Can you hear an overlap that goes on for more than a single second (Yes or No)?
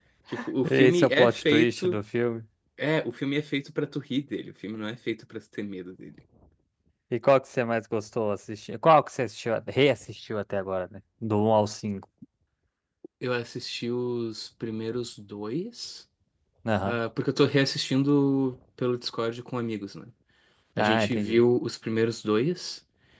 Yes